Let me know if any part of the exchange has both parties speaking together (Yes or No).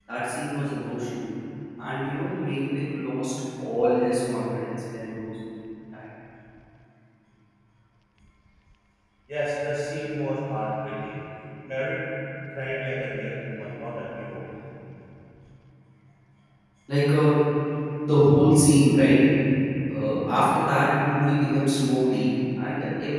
No